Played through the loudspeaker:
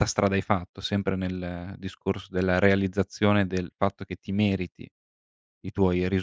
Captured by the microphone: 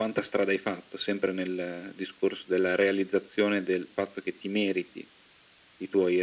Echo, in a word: present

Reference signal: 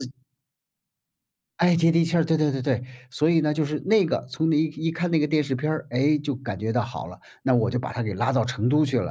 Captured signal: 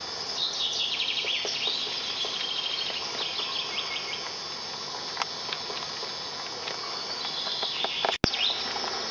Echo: none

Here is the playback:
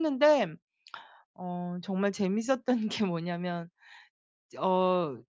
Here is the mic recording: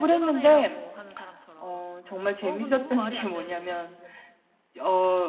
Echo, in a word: present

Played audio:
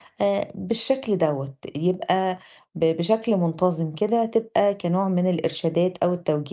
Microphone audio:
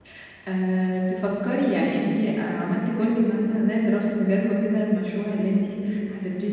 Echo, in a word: none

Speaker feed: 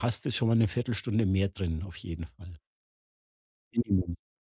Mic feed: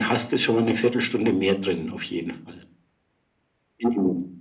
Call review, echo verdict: present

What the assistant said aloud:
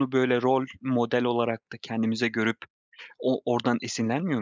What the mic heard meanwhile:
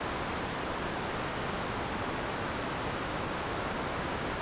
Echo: none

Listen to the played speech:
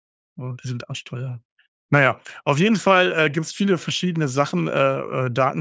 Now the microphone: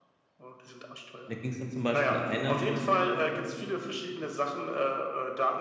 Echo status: present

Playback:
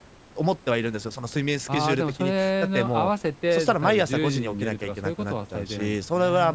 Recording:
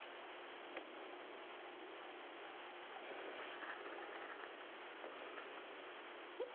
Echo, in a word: none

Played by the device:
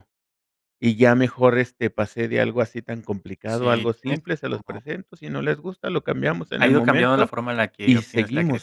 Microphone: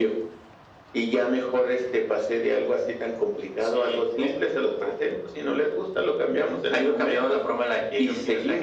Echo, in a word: present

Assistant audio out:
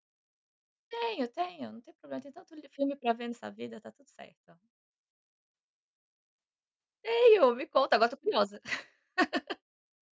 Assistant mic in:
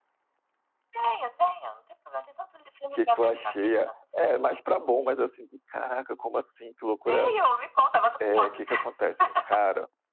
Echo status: present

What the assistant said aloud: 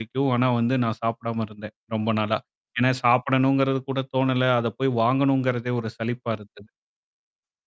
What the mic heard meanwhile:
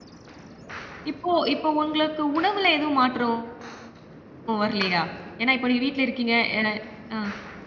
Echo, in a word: none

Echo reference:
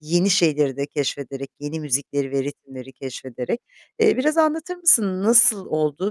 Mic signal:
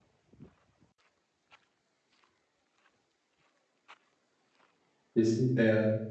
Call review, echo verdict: none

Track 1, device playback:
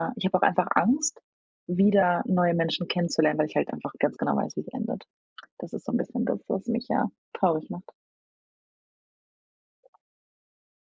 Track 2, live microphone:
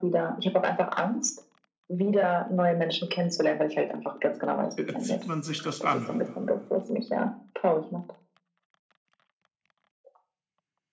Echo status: present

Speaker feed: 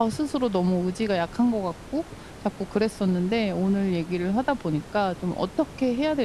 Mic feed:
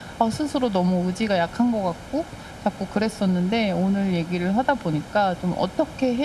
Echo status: present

